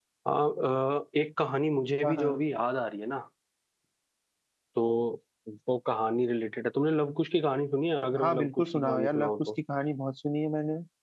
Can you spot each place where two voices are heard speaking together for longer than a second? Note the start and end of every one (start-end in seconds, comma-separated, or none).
8.2-9.5